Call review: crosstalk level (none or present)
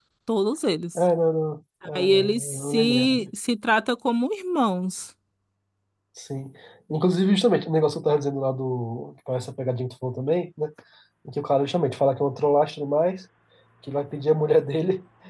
present